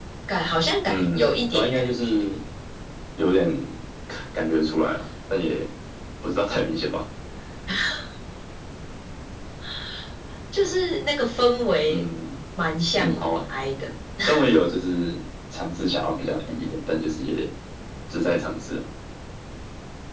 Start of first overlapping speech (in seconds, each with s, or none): 0.8 s